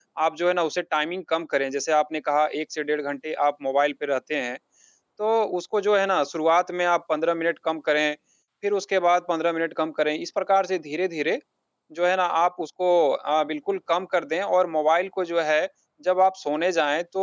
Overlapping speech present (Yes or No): No